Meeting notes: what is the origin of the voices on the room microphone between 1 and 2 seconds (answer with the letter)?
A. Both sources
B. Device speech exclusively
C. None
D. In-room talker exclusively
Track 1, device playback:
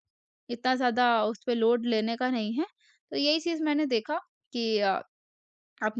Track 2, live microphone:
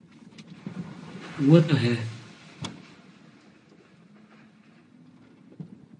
D